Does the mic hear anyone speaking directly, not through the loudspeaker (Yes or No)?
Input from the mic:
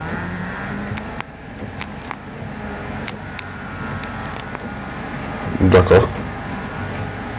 Yes